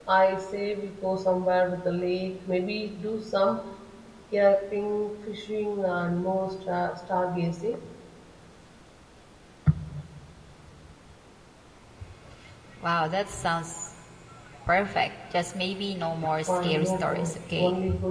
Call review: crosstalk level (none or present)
present